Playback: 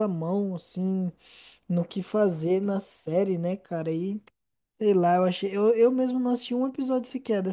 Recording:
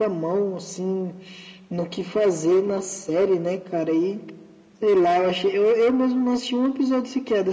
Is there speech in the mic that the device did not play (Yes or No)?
No